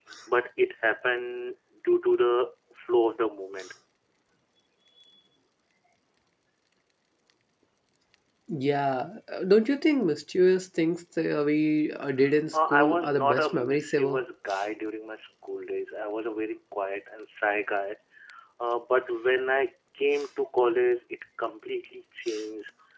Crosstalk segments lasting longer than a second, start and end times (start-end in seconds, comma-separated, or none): 12.5-14.2